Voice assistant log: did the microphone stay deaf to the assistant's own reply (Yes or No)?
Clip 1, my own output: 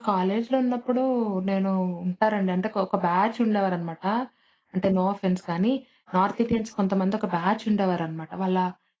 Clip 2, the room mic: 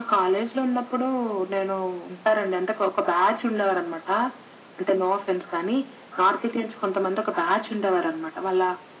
No